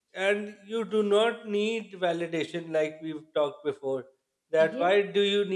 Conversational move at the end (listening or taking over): listening